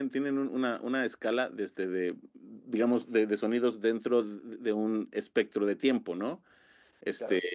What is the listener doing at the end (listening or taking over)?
listening